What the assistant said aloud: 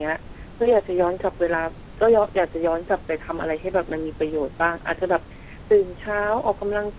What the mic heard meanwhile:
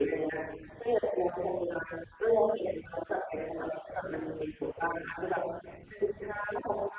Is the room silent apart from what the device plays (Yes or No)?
Yes